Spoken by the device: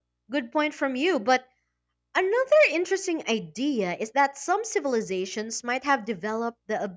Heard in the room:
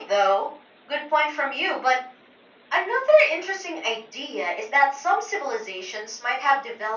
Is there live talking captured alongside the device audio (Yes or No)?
No